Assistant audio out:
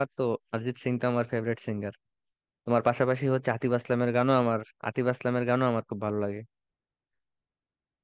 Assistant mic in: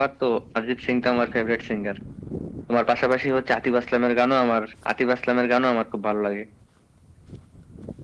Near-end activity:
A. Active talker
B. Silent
B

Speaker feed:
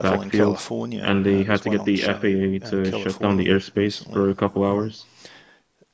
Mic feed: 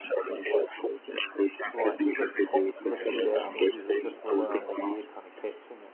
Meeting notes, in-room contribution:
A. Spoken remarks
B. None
A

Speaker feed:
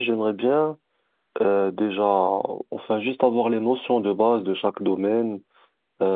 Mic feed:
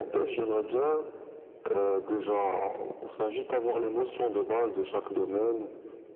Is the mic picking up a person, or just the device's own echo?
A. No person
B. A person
A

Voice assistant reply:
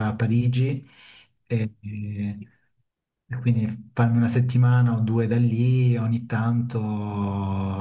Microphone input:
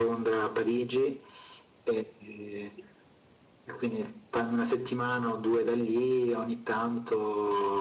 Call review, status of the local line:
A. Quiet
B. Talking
A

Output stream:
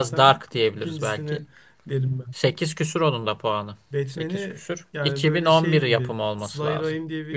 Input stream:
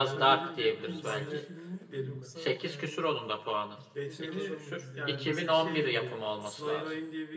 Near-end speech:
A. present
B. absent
A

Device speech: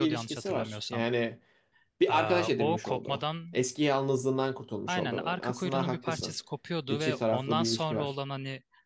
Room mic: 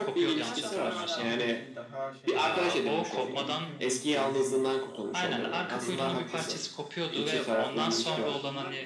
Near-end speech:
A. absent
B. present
B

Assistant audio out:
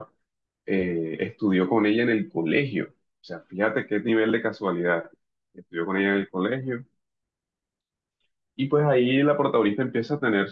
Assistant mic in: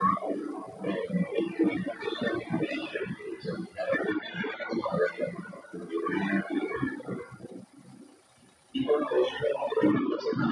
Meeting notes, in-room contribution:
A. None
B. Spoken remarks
A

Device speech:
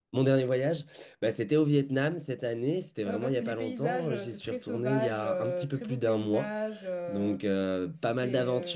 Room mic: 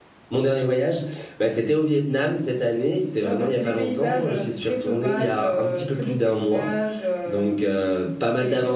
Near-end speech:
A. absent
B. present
A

